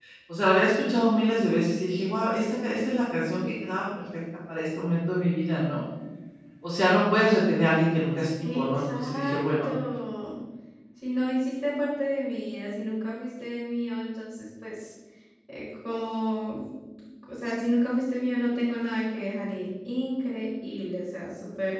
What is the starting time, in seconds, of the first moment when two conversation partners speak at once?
8.4 s

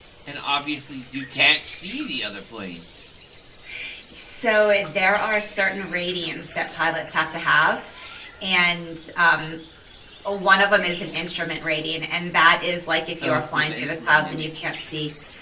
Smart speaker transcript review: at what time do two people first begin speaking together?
13.2 s

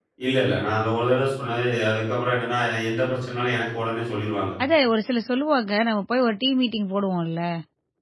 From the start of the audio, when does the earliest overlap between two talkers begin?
none

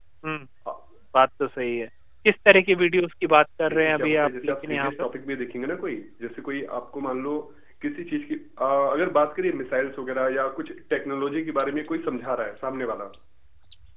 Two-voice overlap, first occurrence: 3.6 s

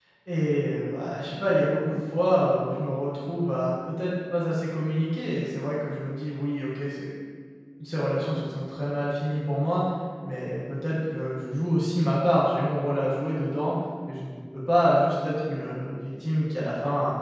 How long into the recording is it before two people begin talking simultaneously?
none

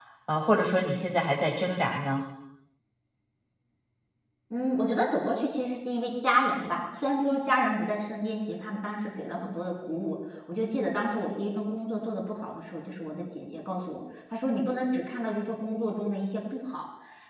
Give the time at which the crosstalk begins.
none

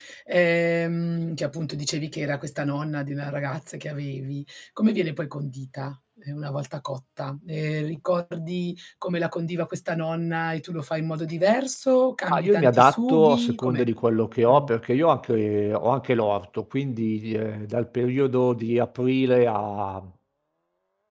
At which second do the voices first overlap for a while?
12.3 s

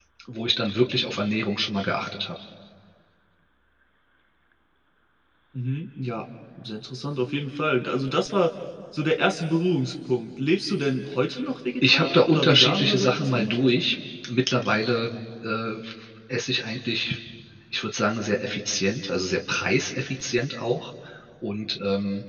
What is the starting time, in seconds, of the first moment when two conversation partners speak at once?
11.8 s

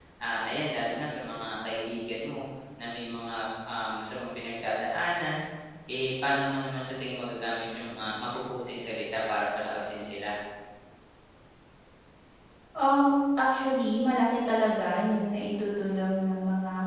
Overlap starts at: none

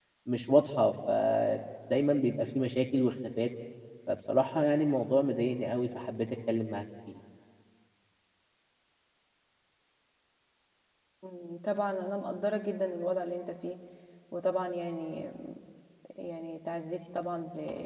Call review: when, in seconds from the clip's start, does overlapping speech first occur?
none

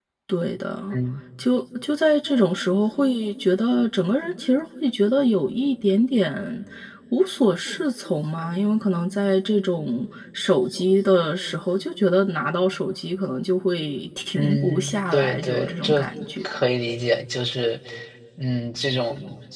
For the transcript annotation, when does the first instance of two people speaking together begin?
14.3 s

